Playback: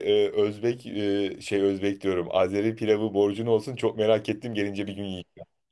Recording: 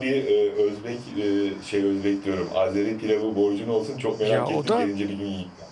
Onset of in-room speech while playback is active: 4.2 s

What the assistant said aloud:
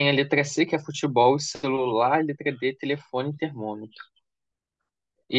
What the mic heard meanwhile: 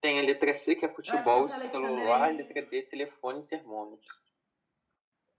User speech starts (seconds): 1.0 s

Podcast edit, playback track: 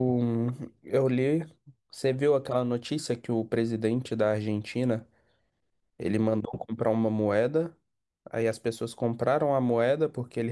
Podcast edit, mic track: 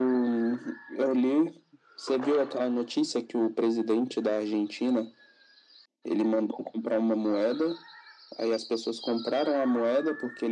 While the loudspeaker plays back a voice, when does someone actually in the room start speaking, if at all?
none

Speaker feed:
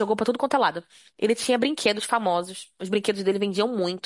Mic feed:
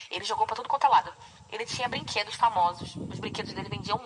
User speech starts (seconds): none

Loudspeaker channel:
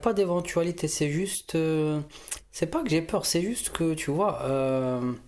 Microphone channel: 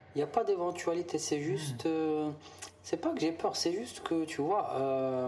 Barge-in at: 1.4 s

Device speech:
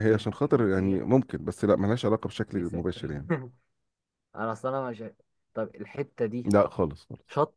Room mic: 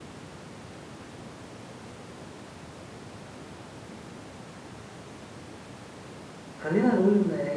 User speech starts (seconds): 6.6 s

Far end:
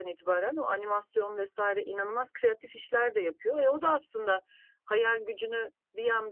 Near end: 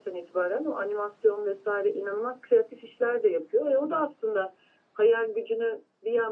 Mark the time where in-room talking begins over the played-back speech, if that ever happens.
none

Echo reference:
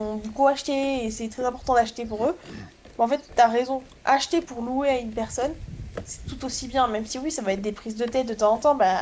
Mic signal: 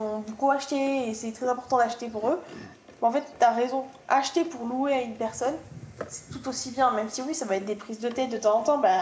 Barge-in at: none

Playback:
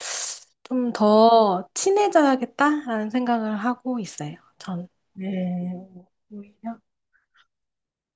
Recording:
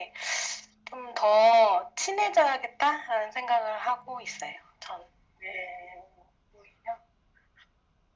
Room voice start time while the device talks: none

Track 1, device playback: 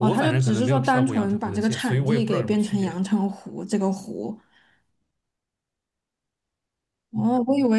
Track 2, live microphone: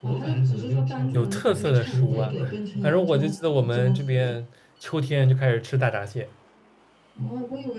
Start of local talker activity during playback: 1.1 s

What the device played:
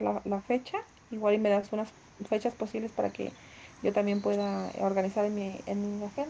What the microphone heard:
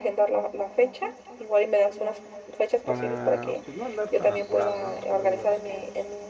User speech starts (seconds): 2.8 s

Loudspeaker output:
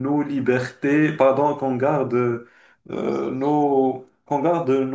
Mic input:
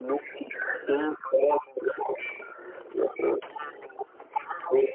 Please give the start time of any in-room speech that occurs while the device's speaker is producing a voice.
none

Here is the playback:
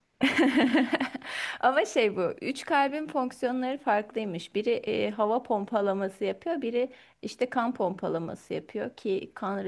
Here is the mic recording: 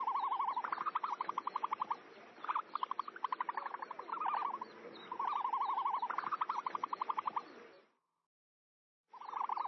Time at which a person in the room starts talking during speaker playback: none

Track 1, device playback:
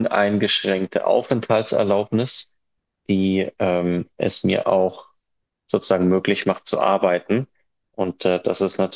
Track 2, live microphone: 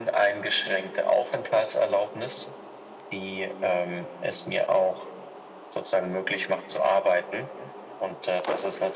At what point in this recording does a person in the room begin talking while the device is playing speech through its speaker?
none

